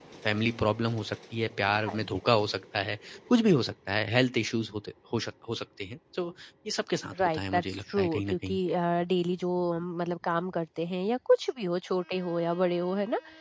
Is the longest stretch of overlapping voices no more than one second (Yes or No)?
No